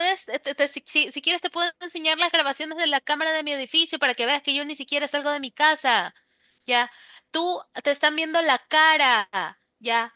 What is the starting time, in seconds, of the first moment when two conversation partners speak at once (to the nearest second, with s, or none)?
none